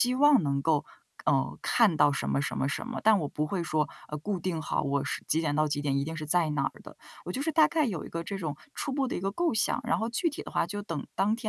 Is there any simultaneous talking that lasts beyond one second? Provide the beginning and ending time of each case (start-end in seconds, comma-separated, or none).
none